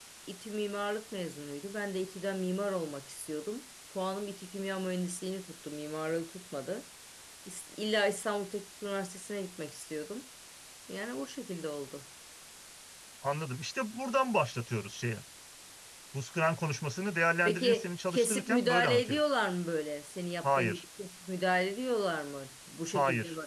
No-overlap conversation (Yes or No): No